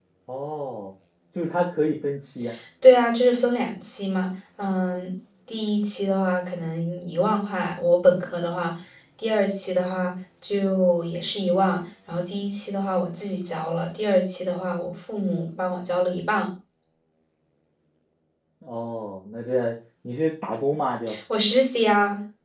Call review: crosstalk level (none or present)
none